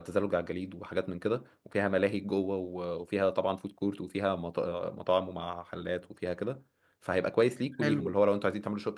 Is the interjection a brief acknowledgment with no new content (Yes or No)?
Yes